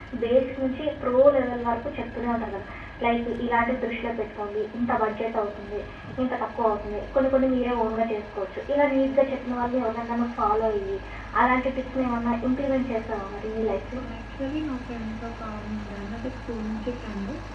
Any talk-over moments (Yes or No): No